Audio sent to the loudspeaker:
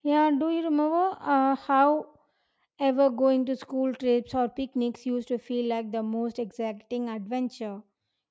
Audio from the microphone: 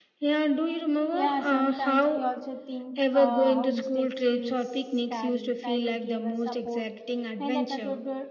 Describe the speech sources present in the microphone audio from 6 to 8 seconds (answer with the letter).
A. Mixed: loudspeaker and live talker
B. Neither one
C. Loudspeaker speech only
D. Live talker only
A